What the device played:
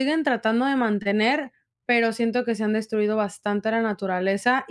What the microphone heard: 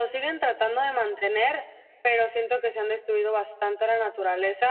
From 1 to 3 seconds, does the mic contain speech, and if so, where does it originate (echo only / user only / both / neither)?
echo only